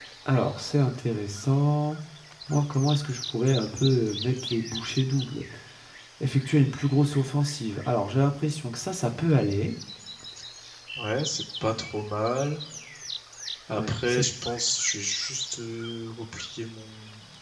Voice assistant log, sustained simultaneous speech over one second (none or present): none